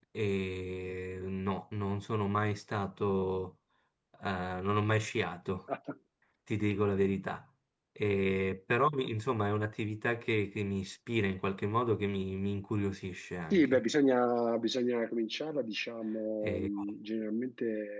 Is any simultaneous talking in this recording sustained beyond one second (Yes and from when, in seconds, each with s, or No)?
No